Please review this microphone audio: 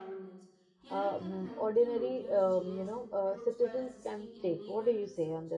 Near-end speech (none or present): present